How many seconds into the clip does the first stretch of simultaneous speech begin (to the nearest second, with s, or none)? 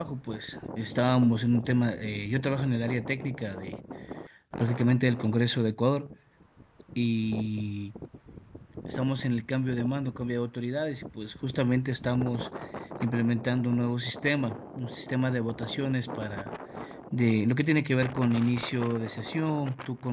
none